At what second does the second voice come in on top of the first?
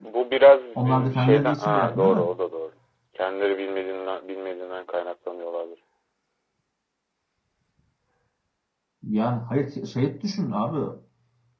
0.8 s

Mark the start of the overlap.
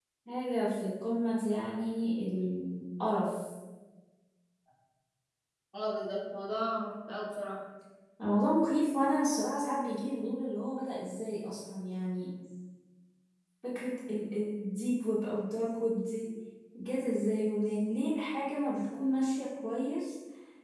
none

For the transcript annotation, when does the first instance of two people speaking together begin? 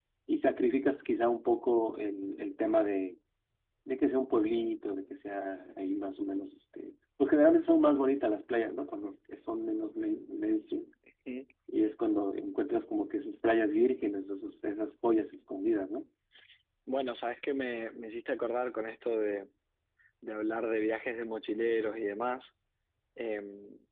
none

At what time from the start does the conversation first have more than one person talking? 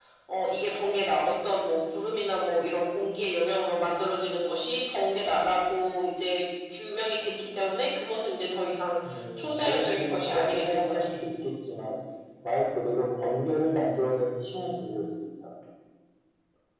9.4 s

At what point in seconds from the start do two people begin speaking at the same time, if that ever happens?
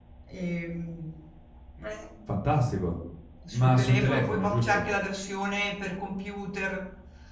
3.6 s

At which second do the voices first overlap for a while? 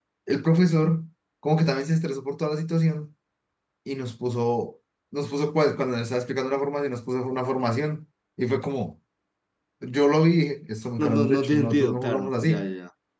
11.0 s

